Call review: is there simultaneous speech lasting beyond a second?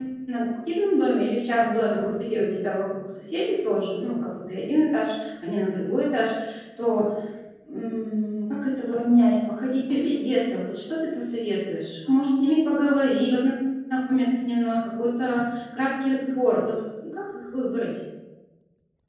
No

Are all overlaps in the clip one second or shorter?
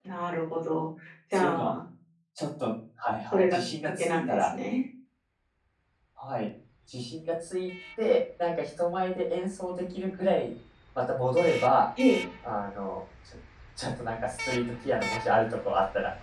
No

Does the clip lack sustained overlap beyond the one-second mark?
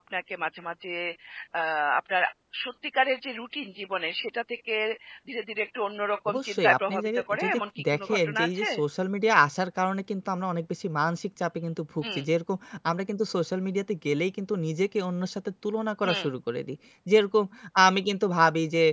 No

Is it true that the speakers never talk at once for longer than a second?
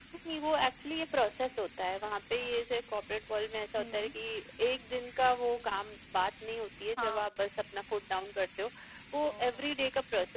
Yes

